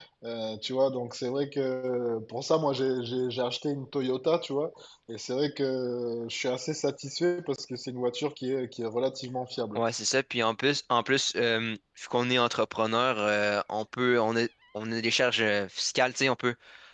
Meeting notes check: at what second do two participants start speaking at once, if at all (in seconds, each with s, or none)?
none